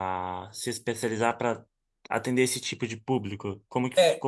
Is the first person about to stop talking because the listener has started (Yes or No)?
Yes